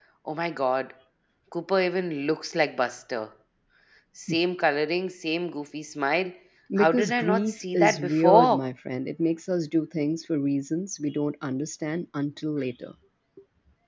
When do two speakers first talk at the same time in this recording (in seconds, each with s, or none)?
6.8 s